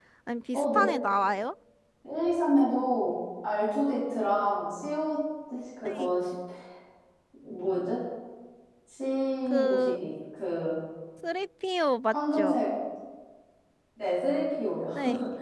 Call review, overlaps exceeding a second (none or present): none